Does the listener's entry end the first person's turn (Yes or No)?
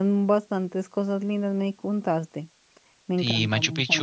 Yes